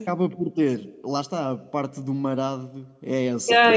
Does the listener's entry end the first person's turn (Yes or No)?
Yes